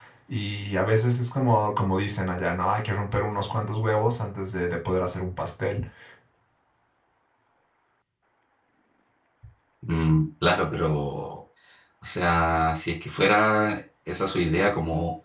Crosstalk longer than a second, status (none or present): none